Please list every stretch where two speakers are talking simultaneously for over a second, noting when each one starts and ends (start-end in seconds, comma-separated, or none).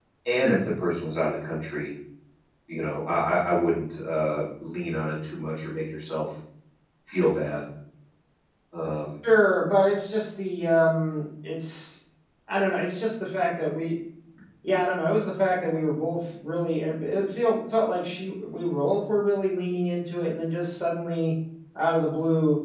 none